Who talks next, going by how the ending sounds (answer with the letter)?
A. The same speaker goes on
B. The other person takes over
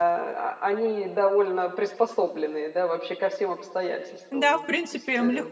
B